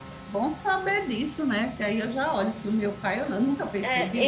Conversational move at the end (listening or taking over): taking over